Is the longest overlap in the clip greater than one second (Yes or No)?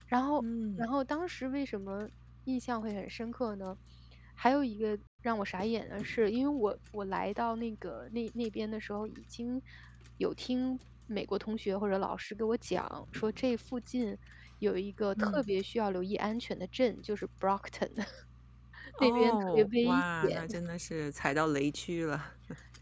Yes